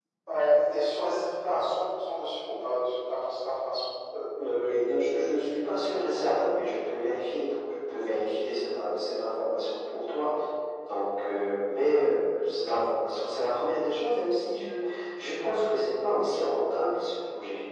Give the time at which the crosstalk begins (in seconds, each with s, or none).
none